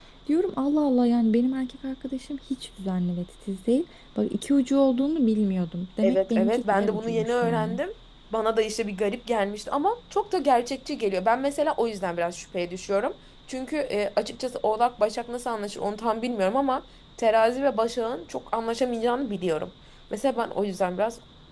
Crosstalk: present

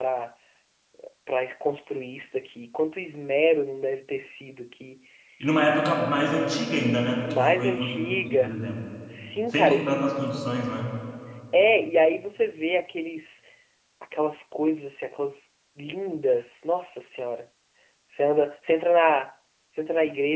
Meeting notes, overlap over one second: present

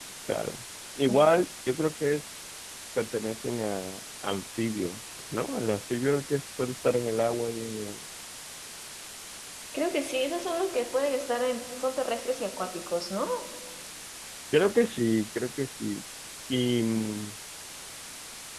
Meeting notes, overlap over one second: none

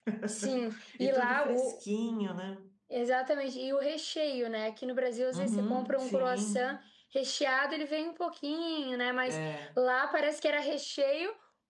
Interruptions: present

